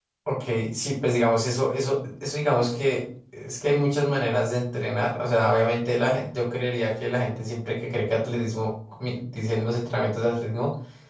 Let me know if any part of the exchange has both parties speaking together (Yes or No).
No